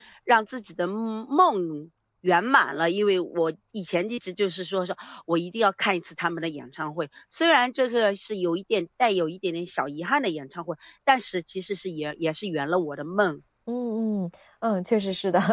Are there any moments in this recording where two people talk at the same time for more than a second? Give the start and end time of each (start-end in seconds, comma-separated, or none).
none